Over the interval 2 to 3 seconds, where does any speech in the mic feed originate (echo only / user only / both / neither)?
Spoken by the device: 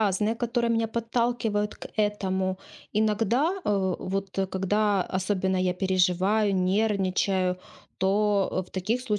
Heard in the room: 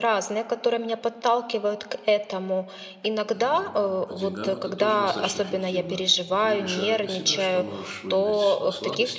echo only